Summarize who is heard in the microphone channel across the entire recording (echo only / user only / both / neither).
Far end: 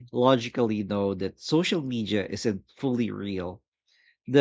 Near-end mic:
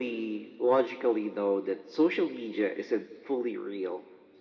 echo only